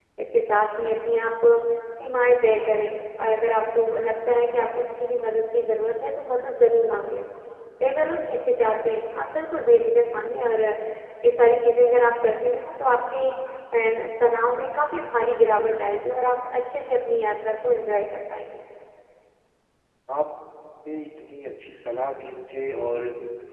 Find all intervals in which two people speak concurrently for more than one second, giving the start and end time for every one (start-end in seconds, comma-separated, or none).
none